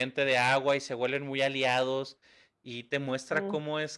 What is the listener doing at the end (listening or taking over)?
listening